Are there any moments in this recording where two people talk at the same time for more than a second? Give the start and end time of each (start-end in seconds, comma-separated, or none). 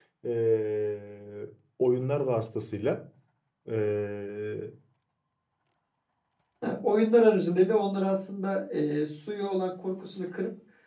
none